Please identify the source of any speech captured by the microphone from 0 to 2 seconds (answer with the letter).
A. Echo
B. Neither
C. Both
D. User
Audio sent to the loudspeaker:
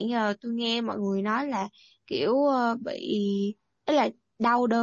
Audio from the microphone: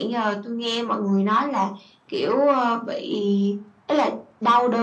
A